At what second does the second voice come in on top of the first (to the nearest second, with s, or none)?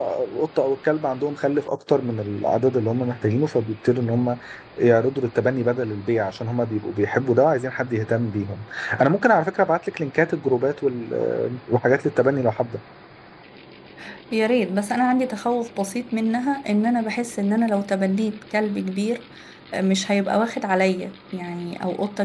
none